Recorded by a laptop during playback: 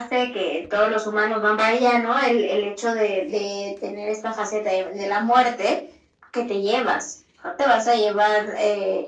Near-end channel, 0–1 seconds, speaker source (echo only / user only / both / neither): echo only